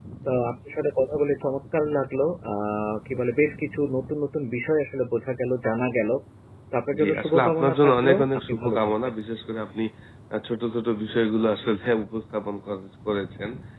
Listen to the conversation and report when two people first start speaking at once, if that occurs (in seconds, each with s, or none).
7.0 s